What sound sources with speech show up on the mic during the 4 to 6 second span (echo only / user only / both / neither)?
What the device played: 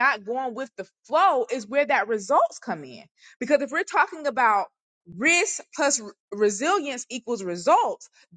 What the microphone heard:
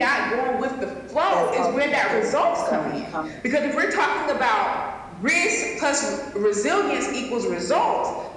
echo only